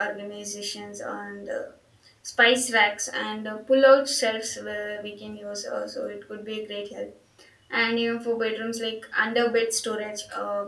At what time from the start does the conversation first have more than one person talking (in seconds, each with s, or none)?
none